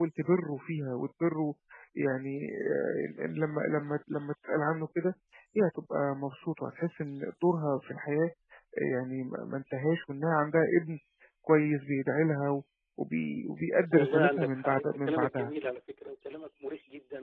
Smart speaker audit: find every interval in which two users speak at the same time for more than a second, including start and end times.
13.9-15.5

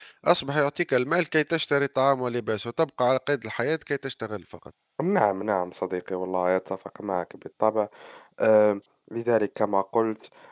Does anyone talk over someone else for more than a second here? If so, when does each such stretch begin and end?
none

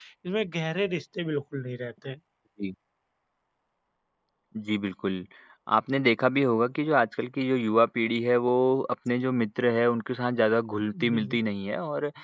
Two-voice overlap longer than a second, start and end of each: none

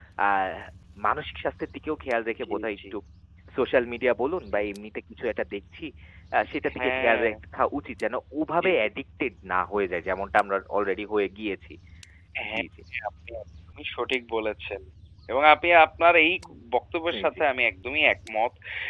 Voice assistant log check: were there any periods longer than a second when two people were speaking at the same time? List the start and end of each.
none

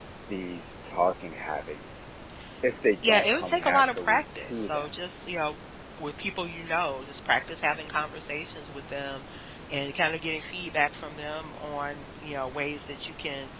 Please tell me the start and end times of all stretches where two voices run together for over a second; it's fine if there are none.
3.0-4.9

